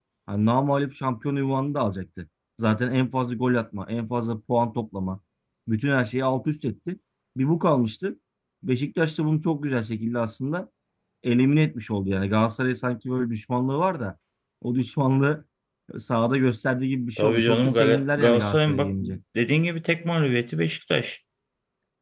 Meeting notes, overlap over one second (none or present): present